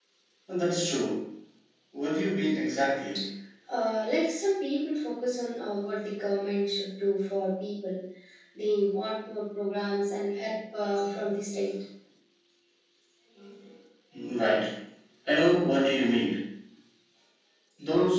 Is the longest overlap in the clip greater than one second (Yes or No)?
No